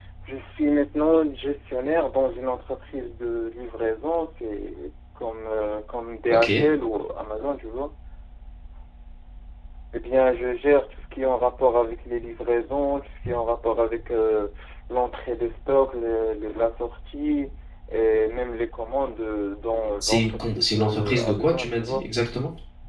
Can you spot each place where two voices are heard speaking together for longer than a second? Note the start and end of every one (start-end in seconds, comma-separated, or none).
20.0-22.0